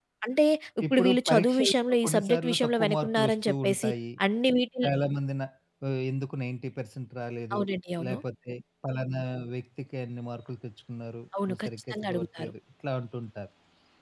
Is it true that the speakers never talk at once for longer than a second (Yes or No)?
No